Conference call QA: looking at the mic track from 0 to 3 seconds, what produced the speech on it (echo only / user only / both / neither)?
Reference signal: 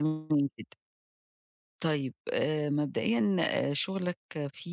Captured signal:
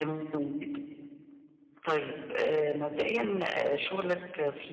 echo only